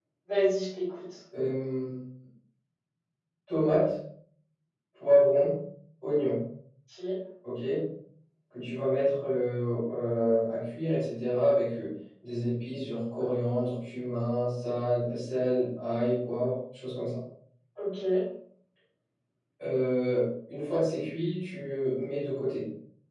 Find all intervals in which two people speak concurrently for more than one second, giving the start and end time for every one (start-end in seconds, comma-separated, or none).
none